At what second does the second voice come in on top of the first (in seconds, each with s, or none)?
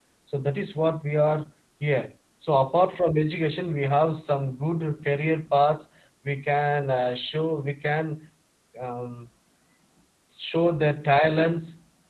none